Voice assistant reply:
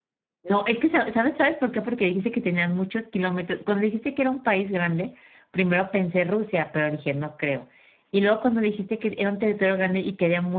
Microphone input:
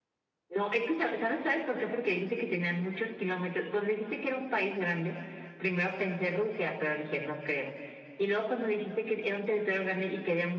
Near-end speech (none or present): none